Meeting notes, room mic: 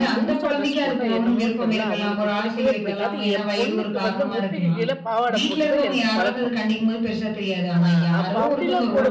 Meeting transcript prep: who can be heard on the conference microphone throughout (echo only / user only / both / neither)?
both